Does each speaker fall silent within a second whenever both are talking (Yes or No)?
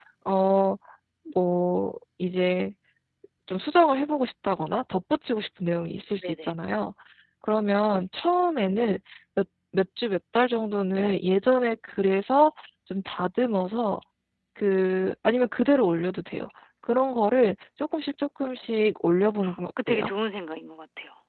Yes